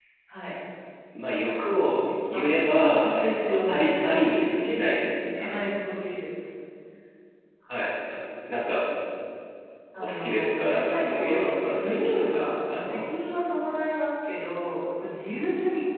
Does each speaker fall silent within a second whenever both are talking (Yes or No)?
No